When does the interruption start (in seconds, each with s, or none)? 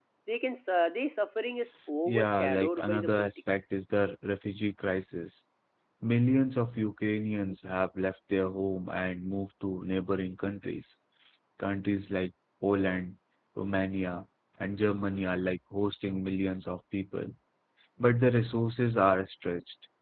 2.1 s